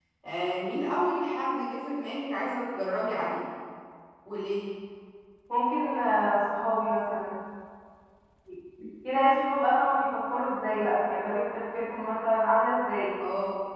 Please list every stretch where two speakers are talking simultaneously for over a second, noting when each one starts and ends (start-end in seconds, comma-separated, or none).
none